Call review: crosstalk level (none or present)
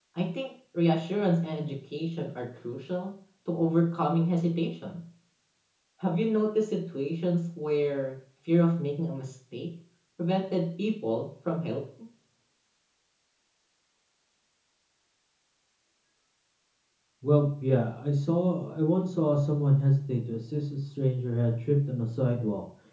none